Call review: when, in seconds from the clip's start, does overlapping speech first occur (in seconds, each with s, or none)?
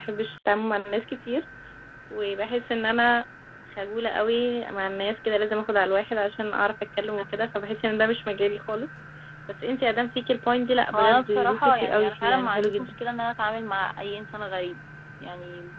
10.9 s